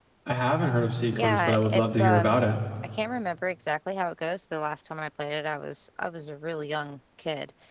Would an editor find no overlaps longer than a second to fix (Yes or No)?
No